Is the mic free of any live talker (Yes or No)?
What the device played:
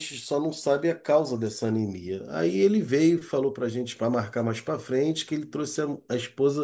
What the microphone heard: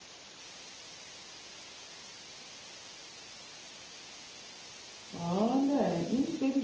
No